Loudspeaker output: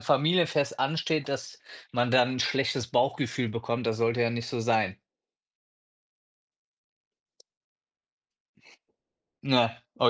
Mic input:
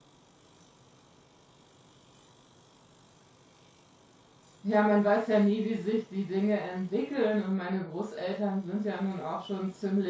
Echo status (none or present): none